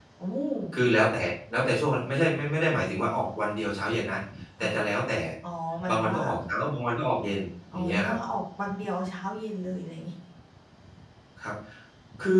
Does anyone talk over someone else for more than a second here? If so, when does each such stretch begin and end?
none

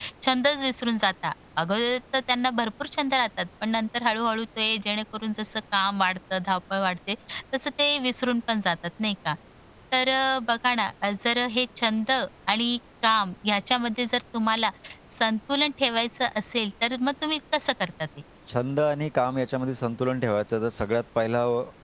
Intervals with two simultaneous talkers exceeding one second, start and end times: none

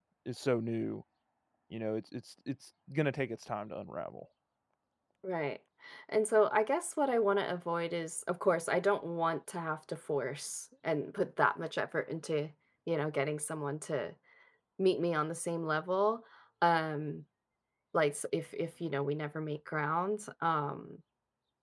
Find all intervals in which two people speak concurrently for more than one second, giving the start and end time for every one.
none

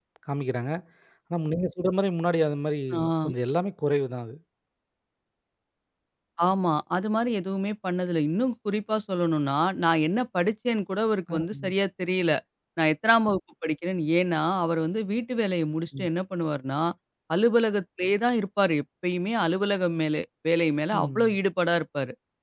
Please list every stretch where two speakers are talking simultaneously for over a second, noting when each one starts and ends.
none

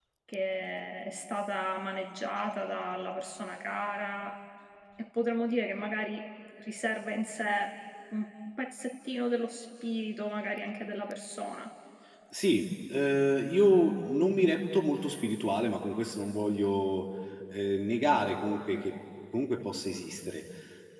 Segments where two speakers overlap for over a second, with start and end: none

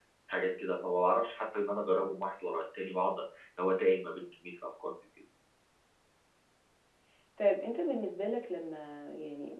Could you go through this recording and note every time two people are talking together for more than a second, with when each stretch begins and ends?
none

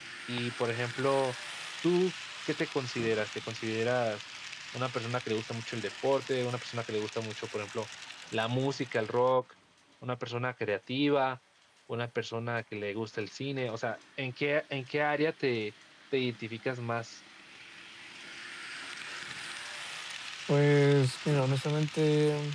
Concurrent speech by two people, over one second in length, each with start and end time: none

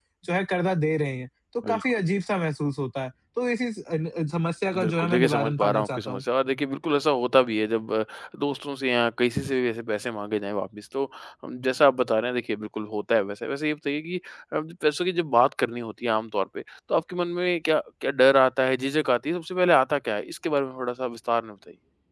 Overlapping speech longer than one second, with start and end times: 4.8-6.2

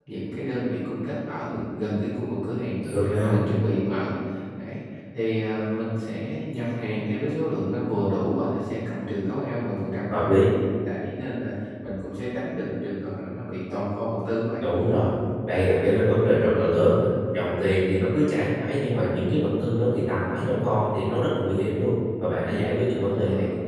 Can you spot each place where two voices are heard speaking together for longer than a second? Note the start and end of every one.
none

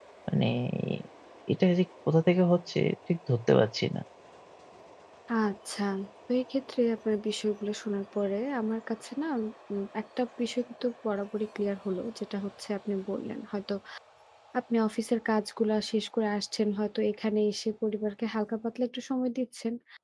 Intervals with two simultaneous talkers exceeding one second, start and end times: none

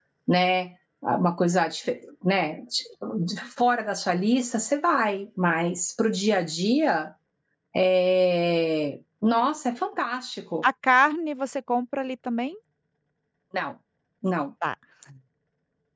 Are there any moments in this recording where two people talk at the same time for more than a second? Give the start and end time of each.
none

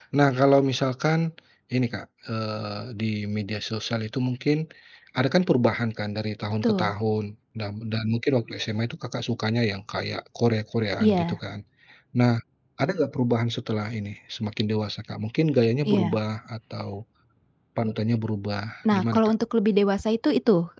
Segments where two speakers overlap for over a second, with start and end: none

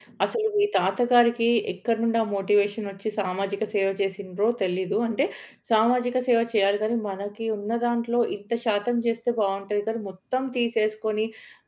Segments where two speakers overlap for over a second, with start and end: none

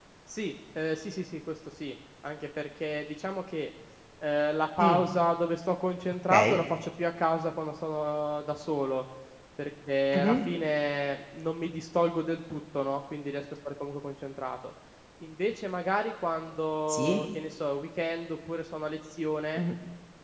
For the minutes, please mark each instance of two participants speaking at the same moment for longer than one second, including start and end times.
none

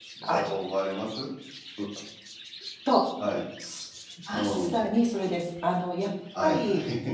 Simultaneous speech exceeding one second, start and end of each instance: none

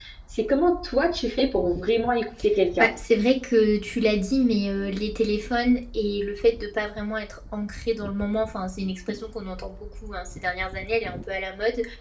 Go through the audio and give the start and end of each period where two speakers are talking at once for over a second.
none

